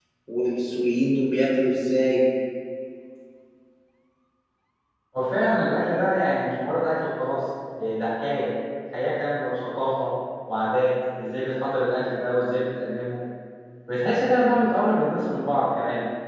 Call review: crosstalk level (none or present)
none